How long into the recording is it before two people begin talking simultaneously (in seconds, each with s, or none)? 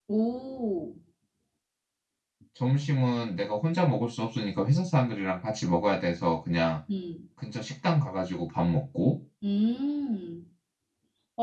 none